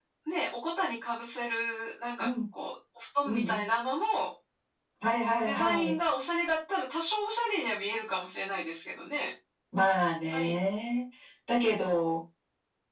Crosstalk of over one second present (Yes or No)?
No